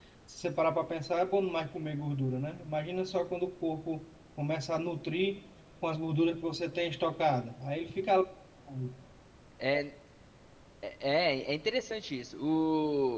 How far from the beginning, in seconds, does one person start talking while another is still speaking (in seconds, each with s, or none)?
none